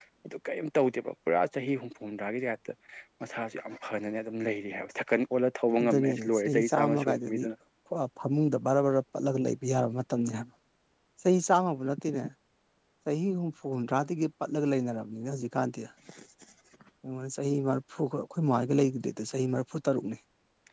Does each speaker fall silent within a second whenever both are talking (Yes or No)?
No